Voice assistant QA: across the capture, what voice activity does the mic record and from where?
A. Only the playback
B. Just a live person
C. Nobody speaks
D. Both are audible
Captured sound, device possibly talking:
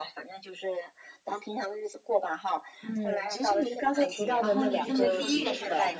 D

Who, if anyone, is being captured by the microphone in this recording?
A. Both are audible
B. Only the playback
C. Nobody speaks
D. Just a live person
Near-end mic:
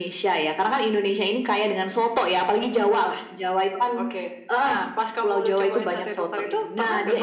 B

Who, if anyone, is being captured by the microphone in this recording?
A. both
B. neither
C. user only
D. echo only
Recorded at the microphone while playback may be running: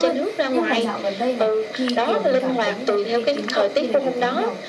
A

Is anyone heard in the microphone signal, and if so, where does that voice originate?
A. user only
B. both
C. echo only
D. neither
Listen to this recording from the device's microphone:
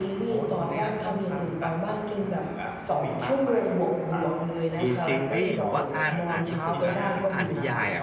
B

